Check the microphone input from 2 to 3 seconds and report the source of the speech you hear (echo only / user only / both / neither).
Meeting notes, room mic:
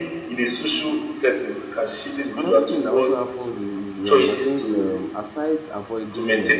both